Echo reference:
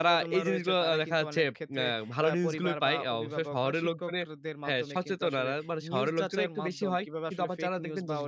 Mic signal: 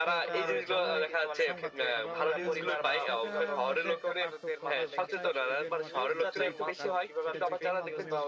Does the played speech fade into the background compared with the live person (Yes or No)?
No